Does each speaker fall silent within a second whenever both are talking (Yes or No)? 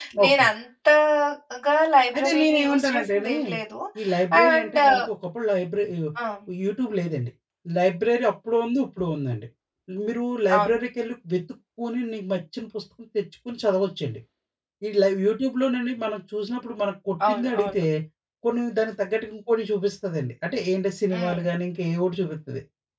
No